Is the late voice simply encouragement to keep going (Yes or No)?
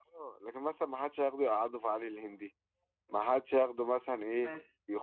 Yes